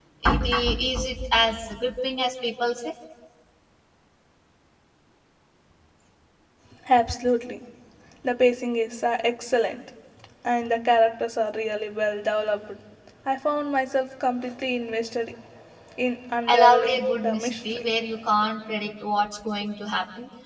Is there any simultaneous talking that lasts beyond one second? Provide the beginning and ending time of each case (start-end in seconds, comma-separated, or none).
16.5-17.9